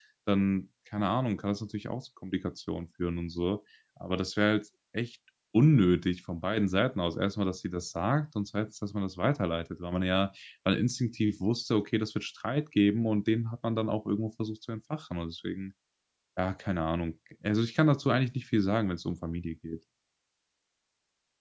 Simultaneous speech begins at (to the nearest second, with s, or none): none